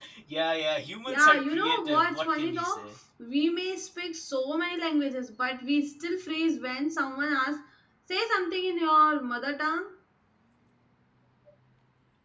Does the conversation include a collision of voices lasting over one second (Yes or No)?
Yes